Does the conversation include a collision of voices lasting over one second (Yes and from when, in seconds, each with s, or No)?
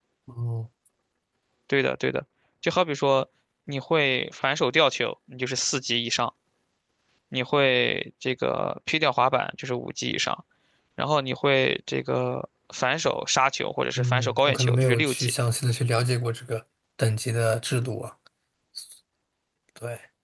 Yes, from 13.9 s